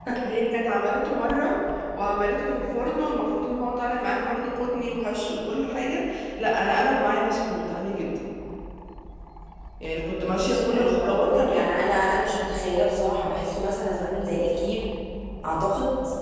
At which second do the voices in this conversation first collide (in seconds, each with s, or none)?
10.2 s